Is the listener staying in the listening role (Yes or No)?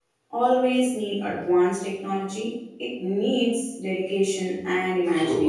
No